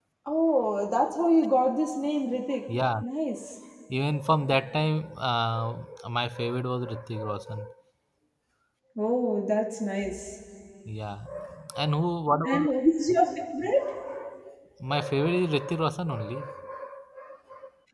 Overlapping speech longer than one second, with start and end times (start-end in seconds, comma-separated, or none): none